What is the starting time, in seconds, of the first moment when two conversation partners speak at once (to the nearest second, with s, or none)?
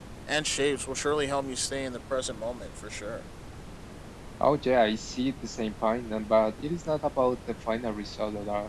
none